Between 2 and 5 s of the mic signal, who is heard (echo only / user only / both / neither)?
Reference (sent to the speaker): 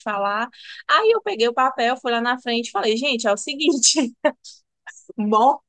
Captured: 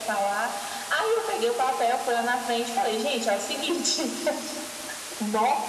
echo only